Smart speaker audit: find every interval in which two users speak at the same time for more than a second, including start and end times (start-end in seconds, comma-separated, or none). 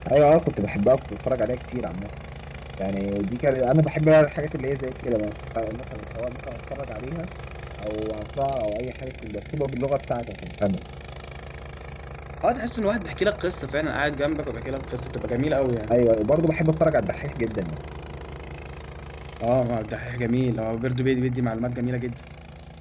none